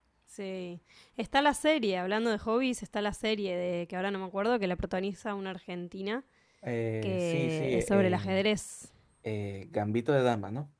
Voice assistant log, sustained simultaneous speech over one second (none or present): present